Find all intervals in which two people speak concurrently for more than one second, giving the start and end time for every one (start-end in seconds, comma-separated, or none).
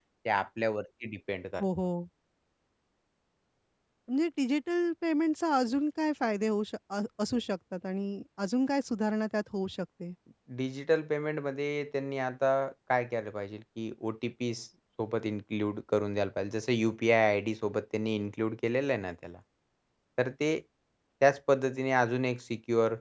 none